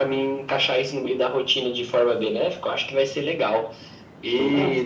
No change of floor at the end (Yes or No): Yes